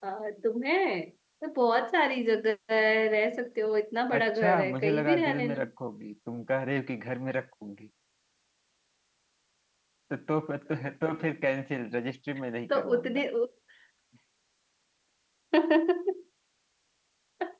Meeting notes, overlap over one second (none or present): present